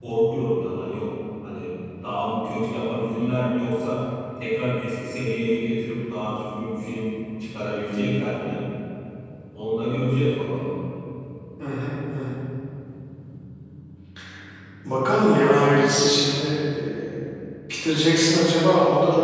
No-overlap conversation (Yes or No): Yes